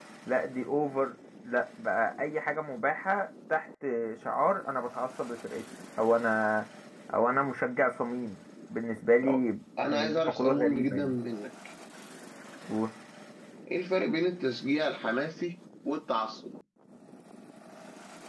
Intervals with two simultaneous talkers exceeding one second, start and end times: 9.9-11.2

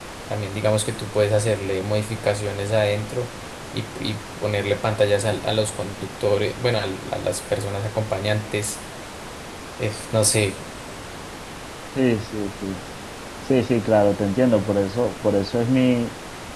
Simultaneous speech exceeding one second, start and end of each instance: none

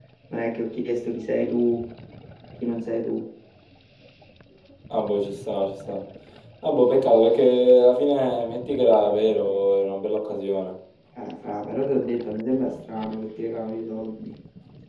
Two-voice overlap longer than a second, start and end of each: none

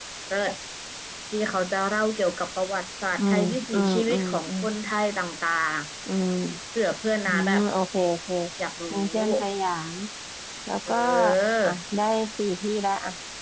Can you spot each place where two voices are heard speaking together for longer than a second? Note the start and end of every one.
3.2-4.5

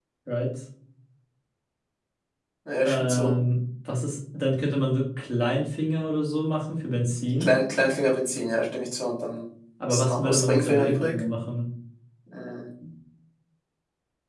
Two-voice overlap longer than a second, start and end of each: 9.9-11.1

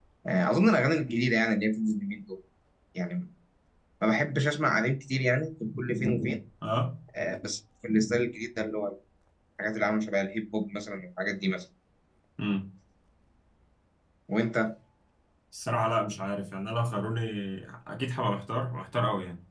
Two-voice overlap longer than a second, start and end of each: none

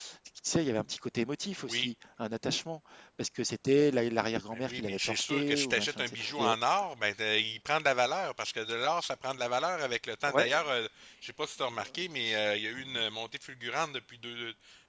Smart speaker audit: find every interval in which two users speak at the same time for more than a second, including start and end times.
4.5-6.5

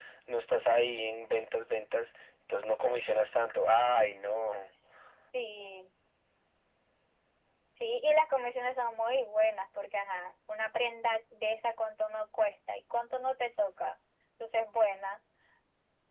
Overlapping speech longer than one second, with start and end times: none

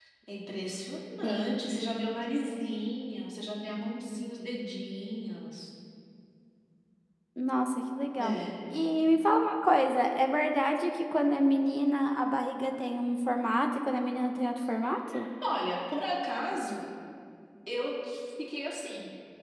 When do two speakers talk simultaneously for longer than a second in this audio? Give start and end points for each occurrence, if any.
none

